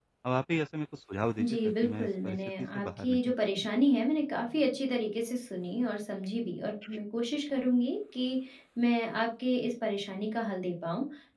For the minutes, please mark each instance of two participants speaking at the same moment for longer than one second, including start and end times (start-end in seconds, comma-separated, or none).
1.4-3.7